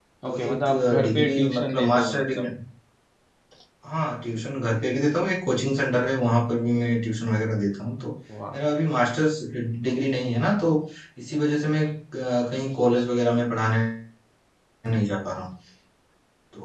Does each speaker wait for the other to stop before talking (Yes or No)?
No